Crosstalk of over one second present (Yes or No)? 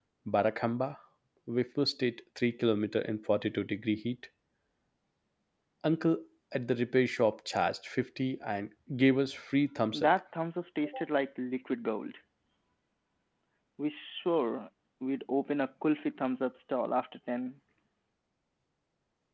No